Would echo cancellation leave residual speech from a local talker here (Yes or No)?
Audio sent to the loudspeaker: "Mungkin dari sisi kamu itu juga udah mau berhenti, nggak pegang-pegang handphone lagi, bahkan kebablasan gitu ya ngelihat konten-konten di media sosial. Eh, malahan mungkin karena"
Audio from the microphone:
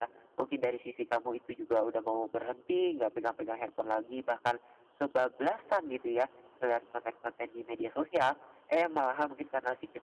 No